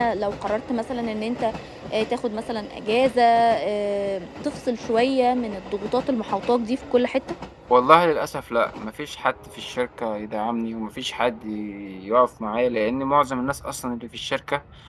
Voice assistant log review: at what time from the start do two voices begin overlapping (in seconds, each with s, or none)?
none